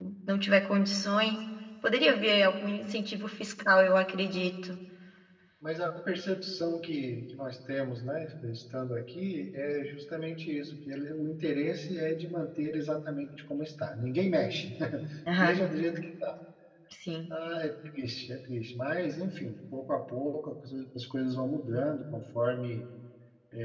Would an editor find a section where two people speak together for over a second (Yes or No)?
No